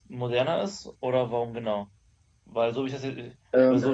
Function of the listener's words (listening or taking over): listening